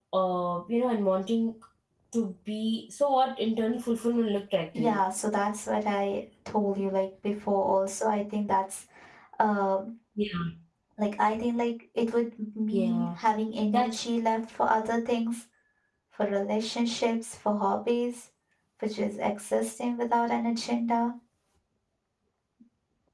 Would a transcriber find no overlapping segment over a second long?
Yes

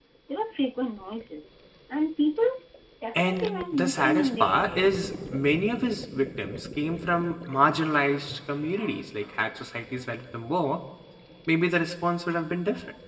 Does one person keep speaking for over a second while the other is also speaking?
Yes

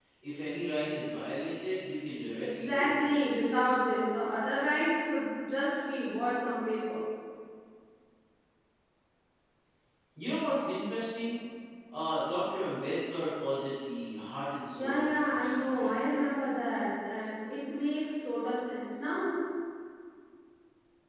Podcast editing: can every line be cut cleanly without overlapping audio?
No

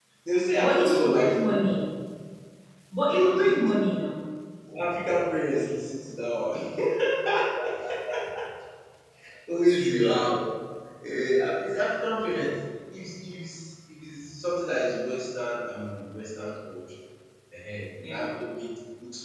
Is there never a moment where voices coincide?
No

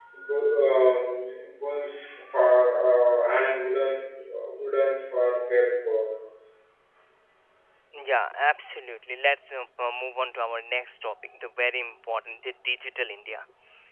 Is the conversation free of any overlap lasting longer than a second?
Yes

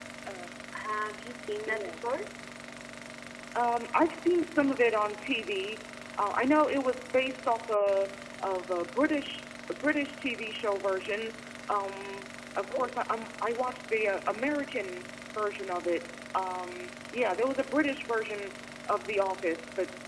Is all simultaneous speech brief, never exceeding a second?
Yes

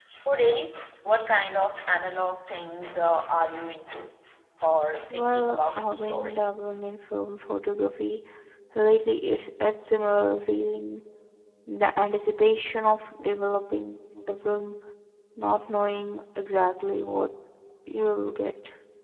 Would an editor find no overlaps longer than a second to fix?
No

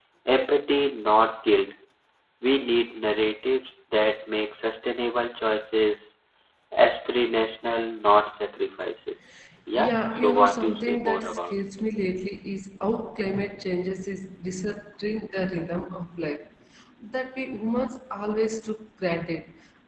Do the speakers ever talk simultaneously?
Yes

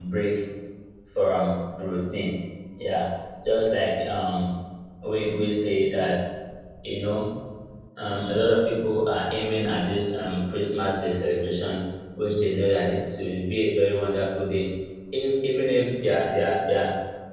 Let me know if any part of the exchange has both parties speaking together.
No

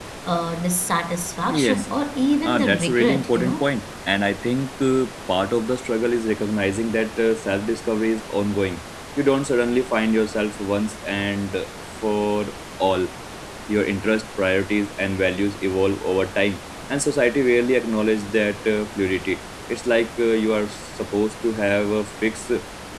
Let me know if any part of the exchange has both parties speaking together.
Yes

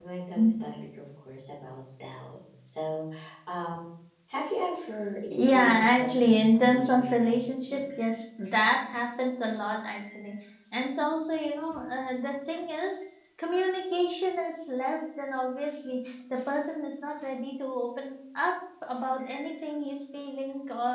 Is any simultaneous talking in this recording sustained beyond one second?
Yes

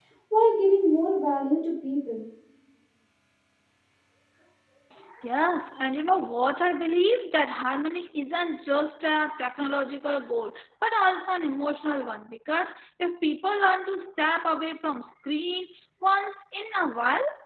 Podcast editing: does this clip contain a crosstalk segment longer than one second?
No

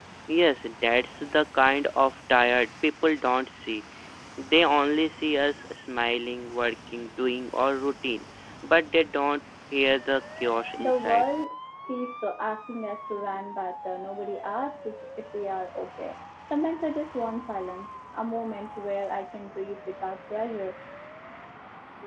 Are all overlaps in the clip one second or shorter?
Yes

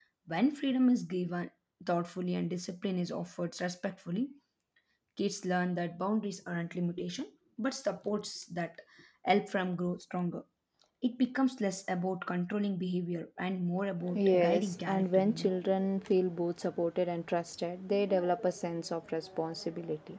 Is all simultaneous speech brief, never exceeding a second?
No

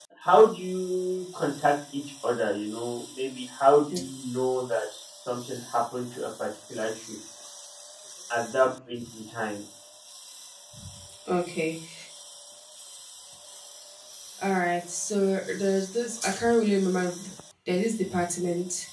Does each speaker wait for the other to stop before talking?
Yes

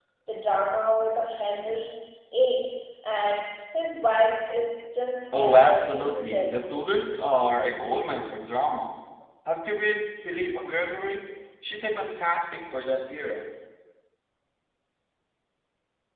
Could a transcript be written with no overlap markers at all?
No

